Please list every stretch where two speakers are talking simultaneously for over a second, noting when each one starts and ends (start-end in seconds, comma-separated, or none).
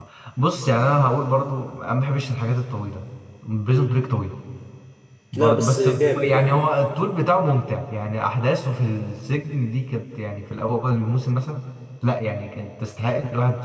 5.3-6.6